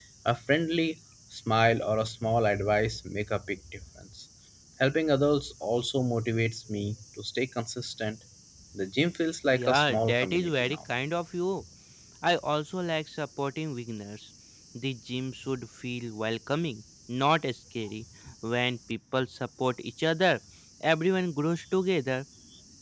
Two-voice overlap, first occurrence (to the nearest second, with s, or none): 10 s